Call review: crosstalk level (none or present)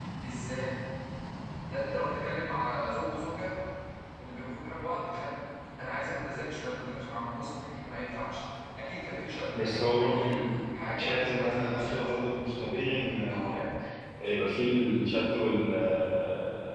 present